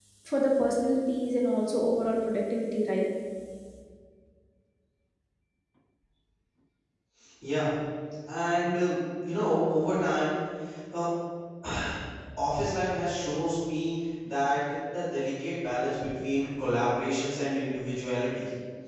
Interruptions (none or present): none